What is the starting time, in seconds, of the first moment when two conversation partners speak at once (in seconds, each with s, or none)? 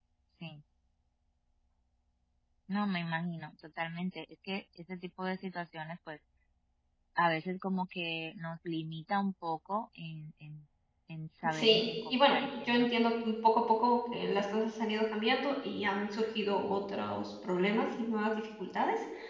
11.5 s